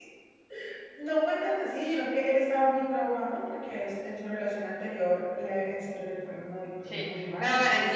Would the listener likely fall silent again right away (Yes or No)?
No